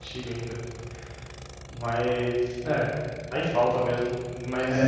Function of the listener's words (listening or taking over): taking over